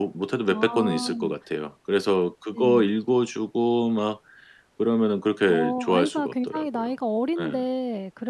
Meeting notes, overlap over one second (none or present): present